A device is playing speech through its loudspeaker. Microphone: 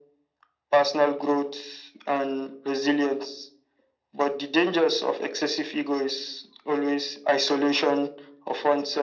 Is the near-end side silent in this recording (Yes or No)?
Yes